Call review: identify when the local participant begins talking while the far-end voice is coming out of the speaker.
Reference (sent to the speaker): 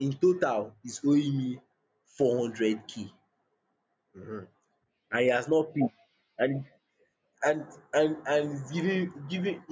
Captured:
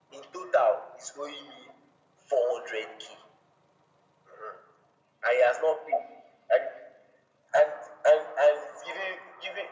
none

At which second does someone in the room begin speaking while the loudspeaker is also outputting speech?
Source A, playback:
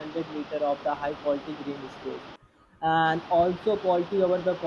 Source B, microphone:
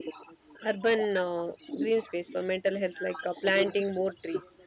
1 s

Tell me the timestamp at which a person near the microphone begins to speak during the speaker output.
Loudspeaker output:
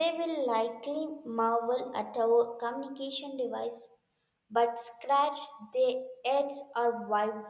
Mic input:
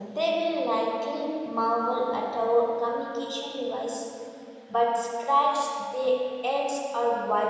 none

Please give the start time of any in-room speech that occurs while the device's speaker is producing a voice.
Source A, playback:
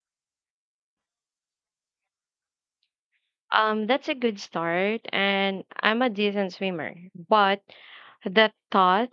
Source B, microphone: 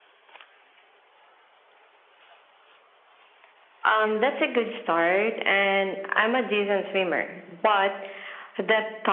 none

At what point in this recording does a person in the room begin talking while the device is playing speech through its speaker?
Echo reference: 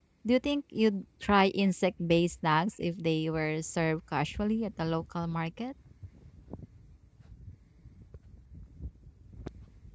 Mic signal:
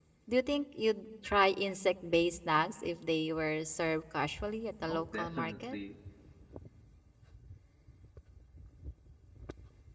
5 s

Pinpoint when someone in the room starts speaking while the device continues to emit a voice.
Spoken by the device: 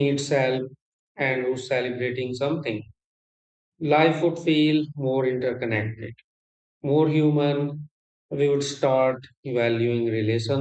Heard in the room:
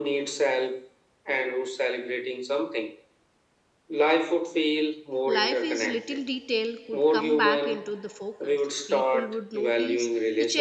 5 s

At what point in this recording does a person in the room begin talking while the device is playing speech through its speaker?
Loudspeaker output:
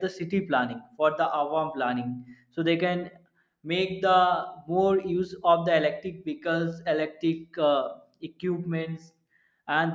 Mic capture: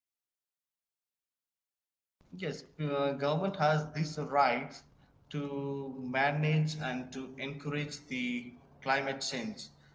2 s

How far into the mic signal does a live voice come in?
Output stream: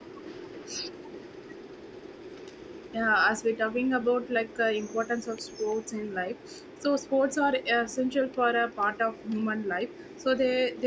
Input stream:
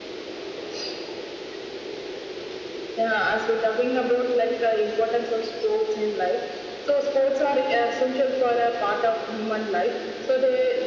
none

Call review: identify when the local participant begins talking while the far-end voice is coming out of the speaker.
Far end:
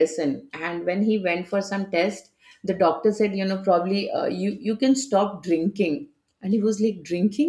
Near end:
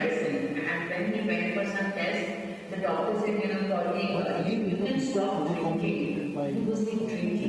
4 s

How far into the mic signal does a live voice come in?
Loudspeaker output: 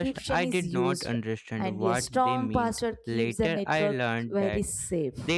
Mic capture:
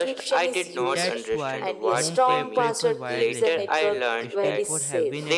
1 s

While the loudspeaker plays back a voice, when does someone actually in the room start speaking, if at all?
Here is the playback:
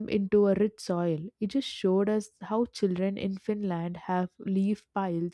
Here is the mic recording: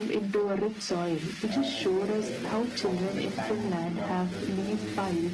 2 s

